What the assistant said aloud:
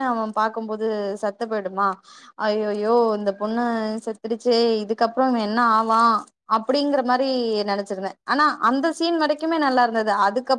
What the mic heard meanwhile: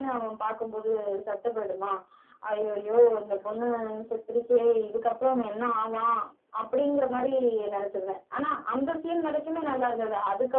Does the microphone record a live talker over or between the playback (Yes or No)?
No